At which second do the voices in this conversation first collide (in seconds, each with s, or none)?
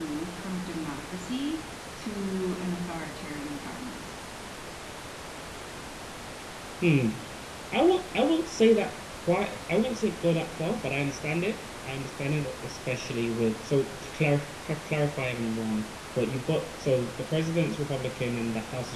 none